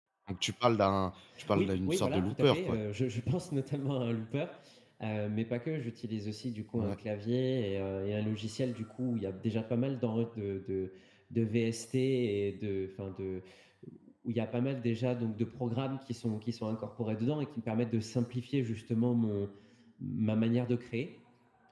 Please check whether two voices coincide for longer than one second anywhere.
Yes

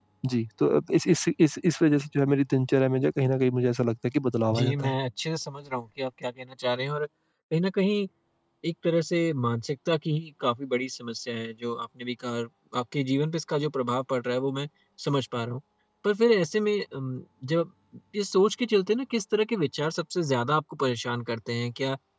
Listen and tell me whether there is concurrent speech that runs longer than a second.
No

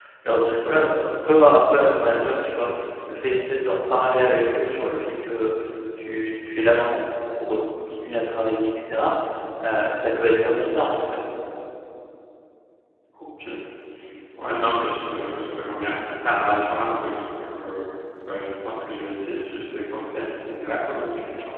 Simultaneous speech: No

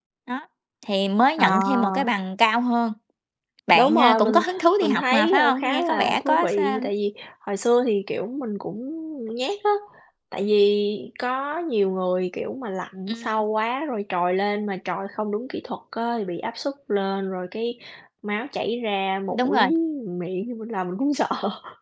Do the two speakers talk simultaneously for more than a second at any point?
Yes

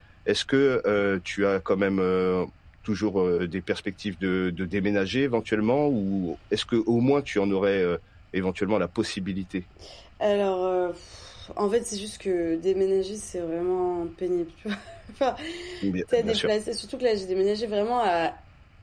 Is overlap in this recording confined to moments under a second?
Yes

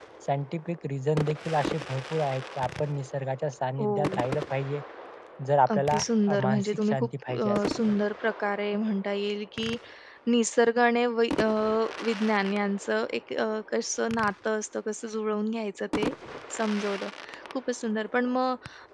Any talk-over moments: Yes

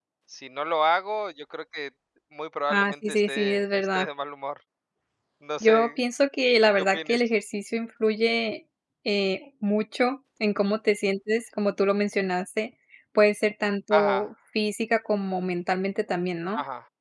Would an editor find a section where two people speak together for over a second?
Yes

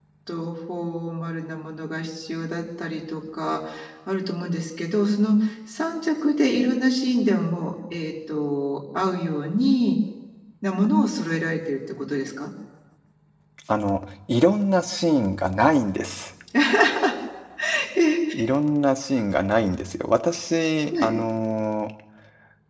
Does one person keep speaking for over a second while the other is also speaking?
No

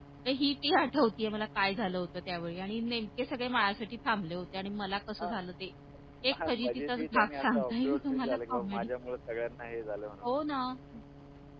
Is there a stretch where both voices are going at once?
Yes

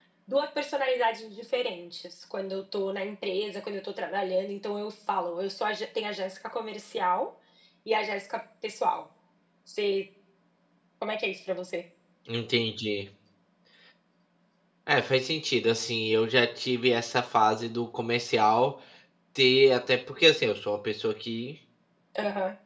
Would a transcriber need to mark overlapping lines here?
No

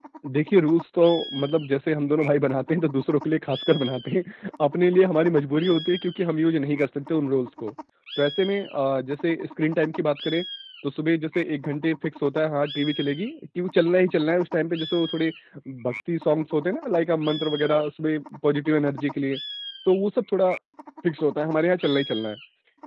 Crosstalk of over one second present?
No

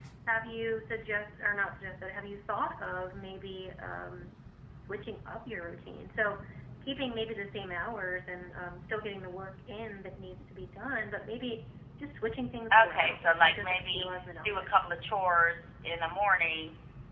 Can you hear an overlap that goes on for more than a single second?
Yes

